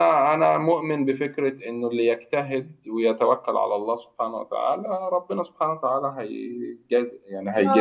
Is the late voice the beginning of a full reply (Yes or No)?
Yes